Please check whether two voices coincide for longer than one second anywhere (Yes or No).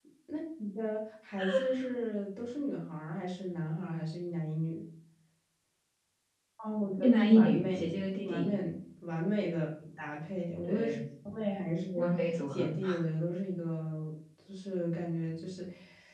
Yes